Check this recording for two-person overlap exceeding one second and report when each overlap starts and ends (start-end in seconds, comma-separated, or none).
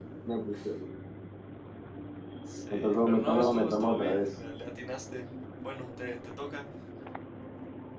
2.7-4.3